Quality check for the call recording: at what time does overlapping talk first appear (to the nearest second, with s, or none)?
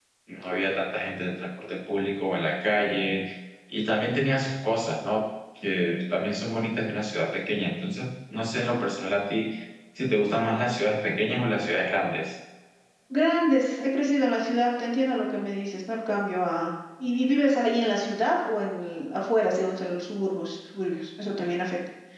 none